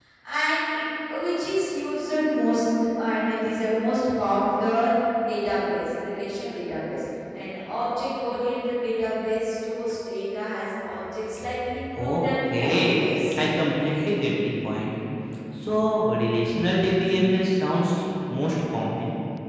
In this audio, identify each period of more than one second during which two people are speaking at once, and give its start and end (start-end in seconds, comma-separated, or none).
12.0-13.4